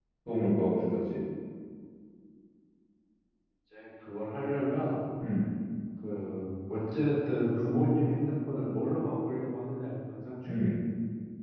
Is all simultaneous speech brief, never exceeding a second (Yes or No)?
Yes